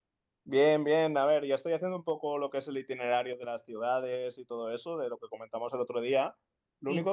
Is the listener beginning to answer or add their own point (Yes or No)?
No